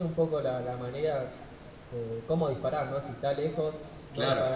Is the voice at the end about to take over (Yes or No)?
No